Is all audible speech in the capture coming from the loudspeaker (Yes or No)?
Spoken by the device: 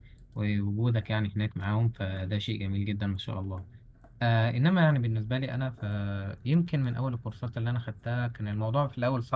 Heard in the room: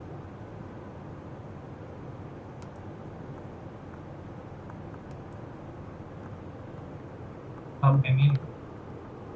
No